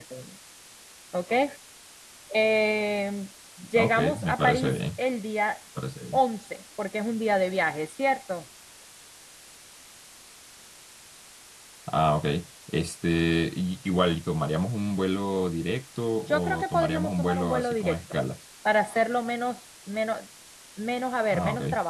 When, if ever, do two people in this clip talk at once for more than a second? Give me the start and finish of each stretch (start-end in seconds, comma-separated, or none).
3.8-5.0, 16.2-18.0